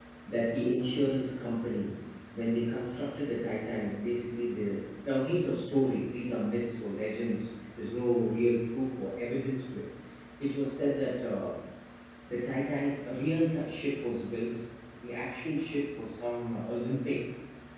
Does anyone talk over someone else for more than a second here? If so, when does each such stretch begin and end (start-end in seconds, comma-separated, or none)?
none